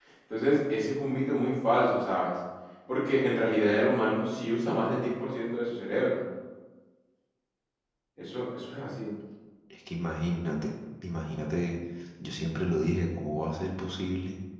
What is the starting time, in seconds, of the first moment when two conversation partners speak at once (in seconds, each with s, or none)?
none